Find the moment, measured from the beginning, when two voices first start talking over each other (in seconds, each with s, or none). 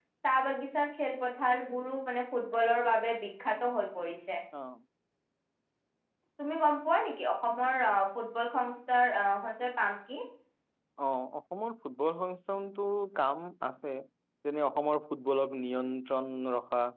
none